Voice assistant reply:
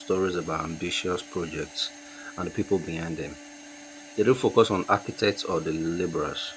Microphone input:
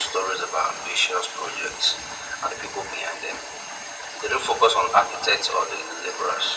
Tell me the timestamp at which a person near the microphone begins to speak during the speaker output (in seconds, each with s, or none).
none